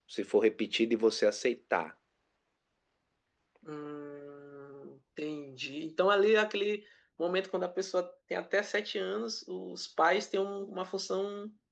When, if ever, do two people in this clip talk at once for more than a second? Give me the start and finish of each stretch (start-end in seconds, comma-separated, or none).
none